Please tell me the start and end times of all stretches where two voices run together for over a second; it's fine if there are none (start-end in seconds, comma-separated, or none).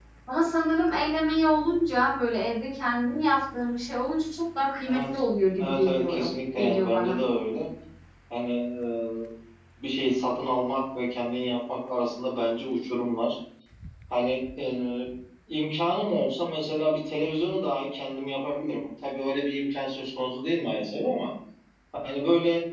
5.6-7.2